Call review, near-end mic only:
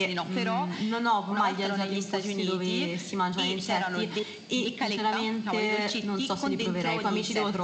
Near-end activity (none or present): present